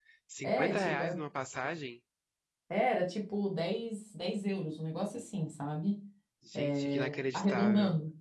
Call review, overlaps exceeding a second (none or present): present